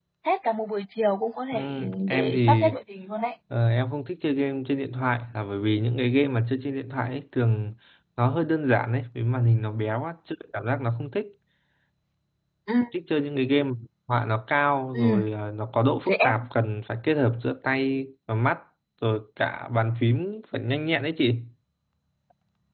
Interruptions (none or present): present